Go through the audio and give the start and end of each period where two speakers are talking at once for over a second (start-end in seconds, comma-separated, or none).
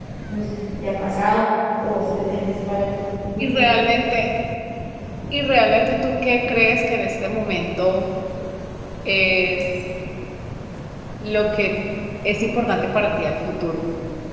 none